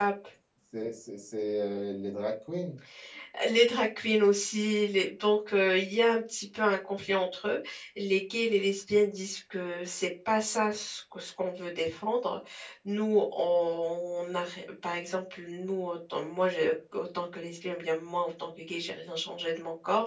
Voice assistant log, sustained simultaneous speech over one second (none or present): none